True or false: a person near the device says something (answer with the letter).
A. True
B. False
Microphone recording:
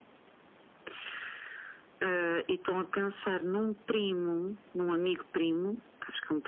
B